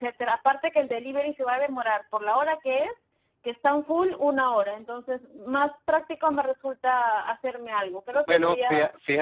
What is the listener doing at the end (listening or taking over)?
taking over